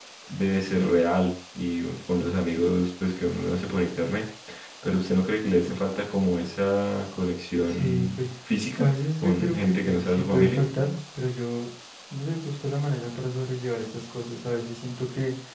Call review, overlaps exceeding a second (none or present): present